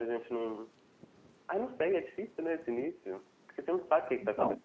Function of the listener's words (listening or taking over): listening